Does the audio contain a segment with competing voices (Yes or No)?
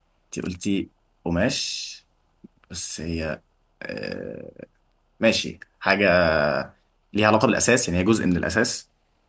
No